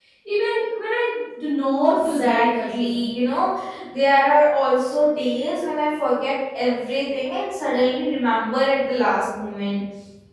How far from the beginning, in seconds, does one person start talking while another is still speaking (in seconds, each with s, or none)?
1.8 s